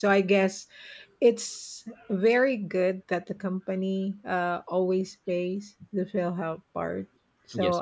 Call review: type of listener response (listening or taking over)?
listening